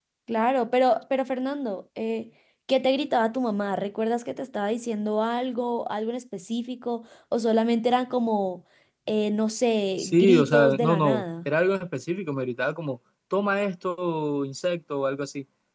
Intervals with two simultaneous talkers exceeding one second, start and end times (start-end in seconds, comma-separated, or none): 10.0-11.2